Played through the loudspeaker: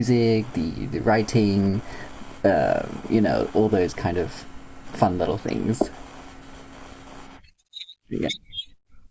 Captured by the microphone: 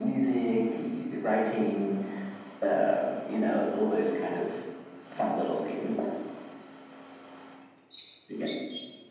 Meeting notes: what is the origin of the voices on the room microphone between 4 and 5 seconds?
echo only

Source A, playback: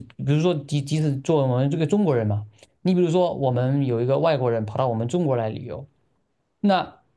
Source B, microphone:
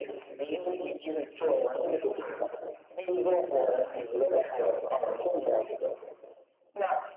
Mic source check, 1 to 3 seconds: echo only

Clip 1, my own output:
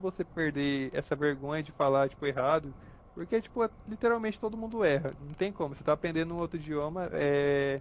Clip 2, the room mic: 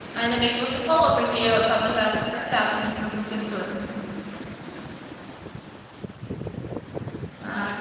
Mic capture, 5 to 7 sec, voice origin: neither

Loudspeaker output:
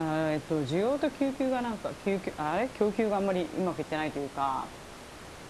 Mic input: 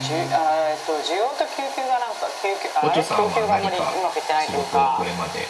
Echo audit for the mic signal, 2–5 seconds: both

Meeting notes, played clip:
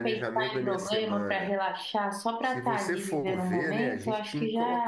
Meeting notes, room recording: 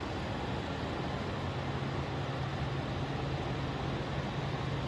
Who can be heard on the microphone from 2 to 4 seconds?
neither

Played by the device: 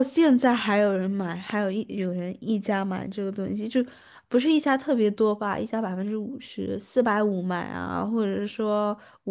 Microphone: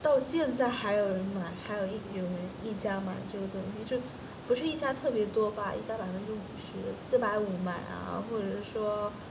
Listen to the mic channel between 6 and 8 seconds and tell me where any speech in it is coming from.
echo only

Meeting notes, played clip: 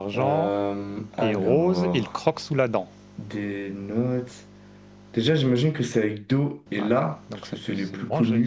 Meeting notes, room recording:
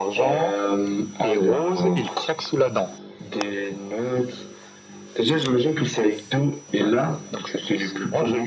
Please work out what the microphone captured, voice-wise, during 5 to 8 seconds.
echo only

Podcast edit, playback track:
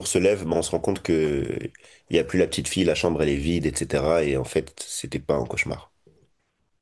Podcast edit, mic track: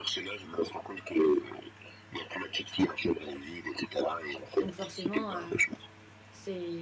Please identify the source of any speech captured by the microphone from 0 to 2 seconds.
echo only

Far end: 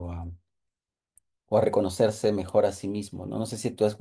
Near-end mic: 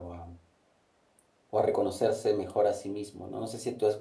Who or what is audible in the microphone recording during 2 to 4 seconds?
echo only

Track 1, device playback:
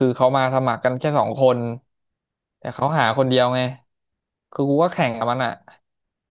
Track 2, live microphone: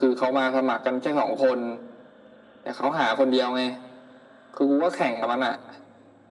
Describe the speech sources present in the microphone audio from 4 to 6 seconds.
echo only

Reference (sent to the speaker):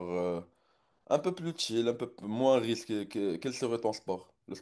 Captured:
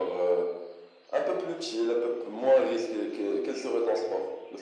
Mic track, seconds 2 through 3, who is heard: echo only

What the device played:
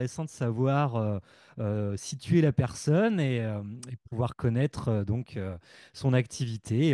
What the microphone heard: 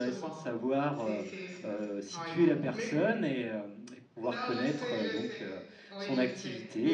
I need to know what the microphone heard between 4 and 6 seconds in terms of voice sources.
both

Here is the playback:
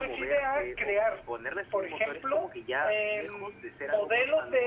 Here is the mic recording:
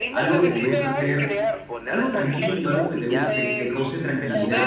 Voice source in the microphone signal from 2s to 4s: both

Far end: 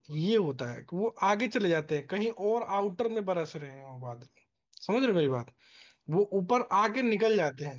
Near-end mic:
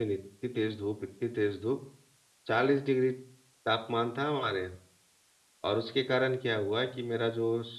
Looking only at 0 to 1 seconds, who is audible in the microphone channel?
user only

